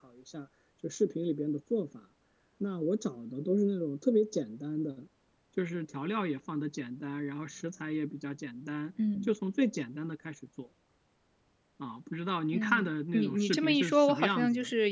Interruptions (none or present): present